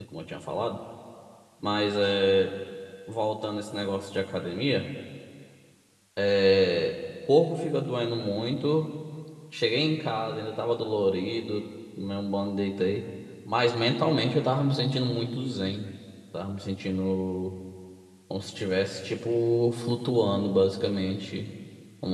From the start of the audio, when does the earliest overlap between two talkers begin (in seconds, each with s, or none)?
none